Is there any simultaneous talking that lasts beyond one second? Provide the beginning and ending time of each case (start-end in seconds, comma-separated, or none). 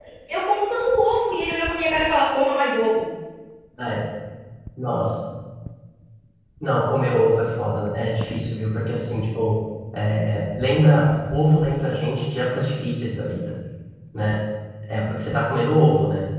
none